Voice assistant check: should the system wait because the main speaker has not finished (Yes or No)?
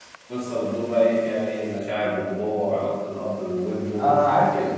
No